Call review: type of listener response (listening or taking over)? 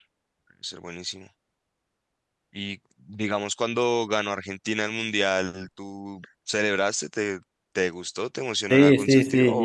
taking over